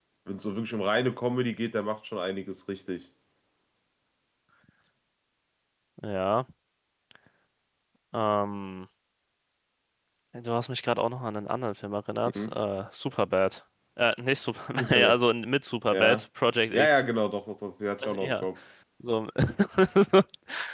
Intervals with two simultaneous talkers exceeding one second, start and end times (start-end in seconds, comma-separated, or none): none